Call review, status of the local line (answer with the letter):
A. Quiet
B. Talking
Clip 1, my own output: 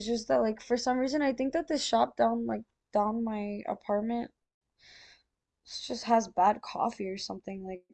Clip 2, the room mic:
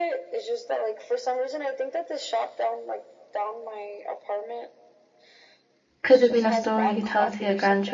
B